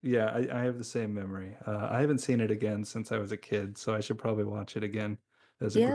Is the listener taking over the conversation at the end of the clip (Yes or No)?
Yes